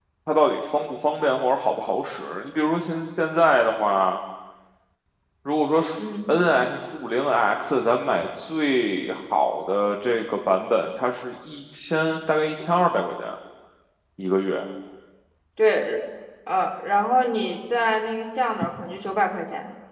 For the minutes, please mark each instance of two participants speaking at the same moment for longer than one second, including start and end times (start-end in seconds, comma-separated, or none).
none